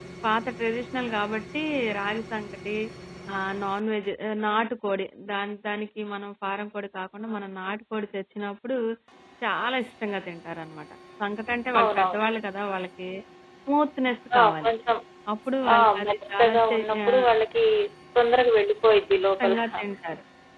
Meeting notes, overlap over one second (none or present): present